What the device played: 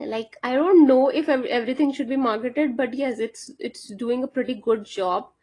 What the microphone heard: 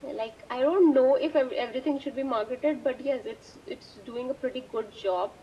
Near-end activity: none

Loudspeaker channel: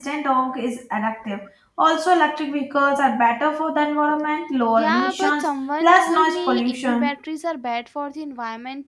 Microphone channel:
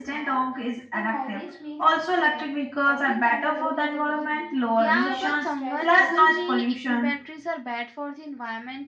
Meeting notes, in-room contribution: present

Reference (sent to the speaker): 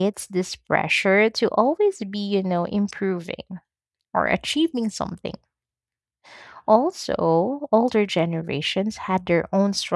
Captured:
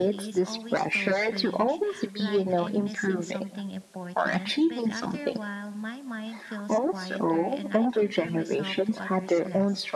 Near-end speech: present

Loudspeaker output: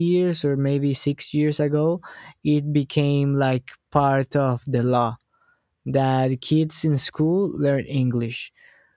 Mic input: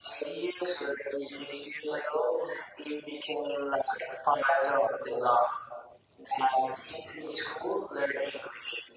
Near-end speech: none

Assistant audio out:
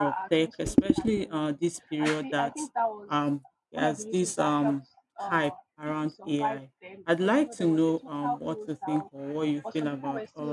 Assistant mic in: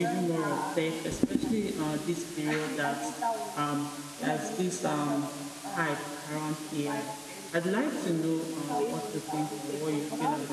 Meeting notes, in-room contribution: present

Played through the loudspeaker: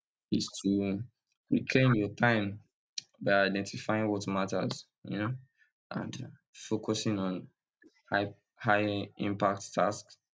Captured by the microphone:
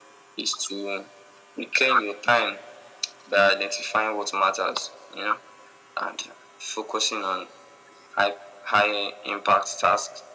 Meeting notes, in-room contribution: none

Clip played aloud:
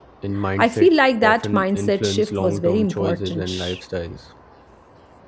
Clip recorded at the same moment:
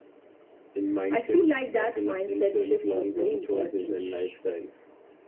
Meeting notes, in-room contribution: none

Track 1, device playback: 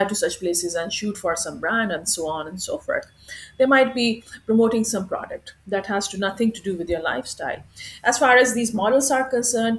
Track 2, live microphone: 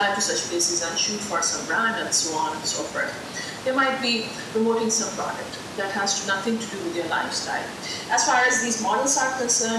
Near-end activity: none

